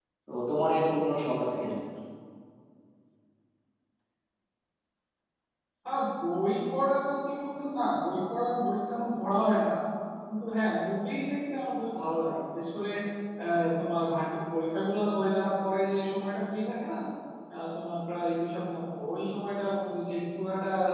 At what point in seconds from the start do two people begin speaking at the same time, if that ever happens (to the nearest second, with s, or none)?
none